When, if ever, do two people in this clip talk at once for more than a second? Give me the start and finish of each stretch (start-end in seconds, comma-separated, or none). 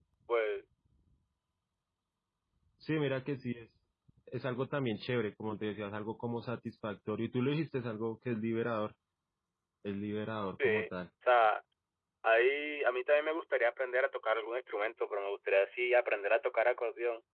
none